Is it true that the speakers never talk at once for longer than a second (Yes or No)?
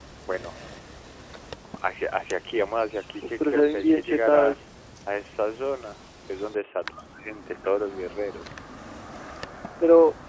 No